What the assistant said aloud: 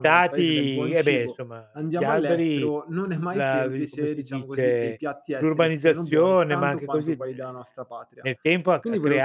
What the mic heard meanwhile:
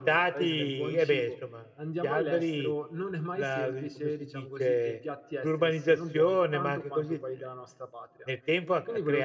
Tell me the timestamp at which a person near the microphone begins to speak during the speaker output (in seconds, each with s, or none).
none